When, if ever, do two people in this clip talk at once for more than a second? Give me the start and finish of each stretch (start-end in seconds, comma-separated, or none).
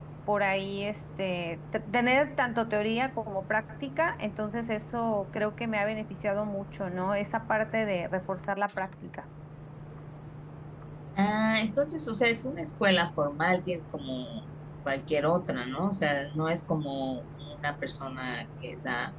none